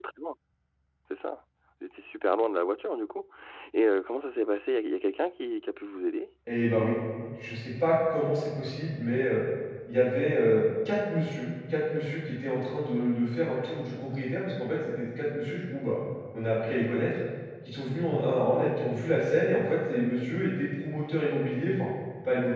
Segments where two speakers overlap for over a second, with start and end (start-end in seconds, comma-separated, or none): none